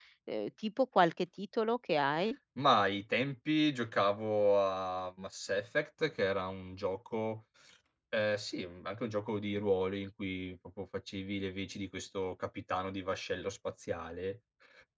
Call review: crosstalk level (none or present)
none